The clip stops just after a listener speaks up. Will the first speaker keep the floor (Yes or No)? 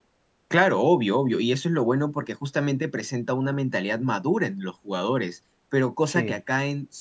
Yes